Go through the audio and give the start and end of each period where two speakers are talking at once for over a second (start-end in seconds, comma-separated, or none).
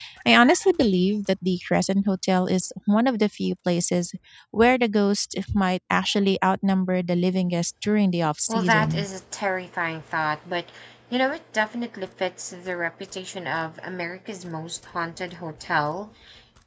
none